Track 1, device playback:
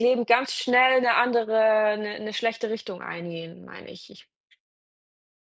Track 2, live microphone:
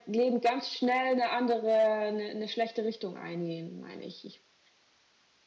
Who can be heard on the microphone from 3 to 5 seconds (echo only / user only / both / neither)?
echo only